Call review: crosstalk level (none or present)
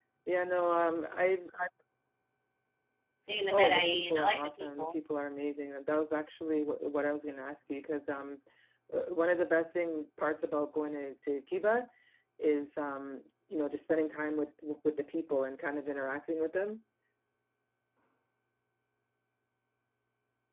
present